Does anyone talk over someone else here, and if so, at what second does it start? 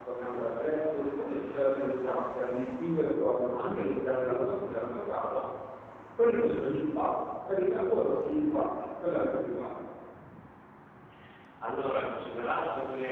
none

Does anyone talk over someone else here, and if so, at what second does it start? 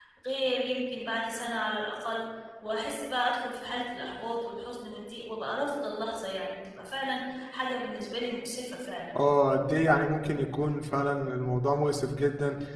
none

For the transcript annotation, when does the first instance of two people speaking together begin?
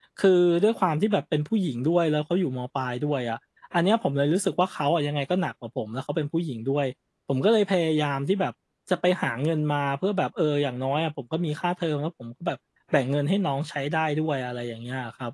none

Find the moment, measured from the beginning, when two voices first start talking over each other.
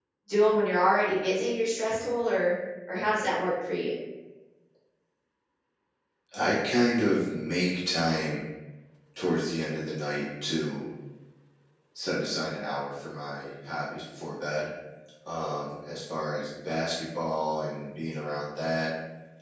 none

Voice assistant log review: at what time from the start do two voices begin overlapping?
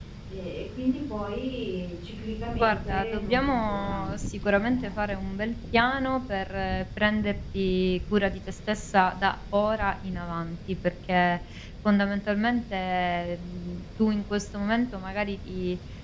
2.6 s

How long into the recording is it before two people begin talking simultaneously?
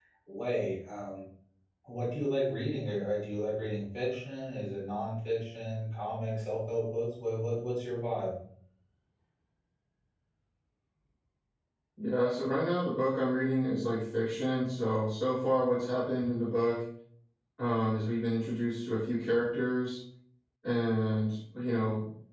none

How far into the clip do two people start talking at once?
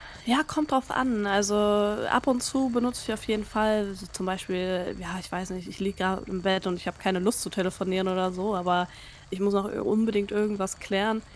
none

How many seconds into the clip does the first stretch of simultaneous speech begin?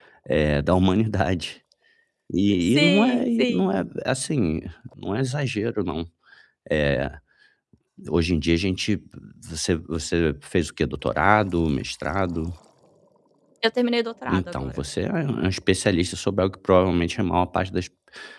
2.6 s

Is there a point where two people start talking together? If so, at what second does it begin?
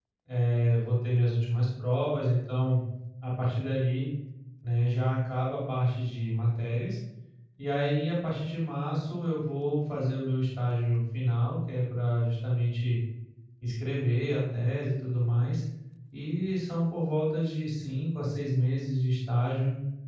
none

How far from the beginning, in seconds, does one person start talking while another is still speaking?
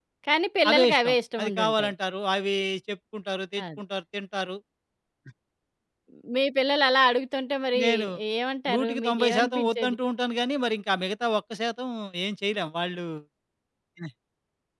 0.7 s

